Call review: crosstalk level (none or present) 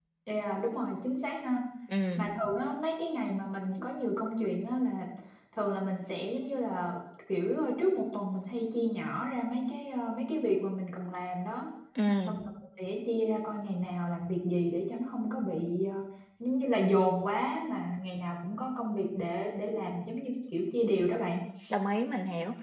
none